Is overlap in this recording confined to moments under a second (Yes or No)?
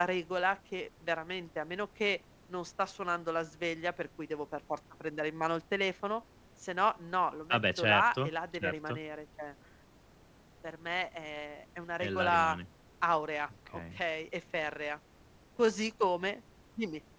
No